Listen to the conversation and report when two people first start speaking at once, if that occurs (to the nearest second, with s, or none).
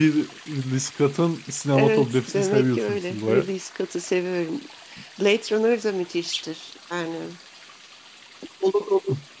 2 s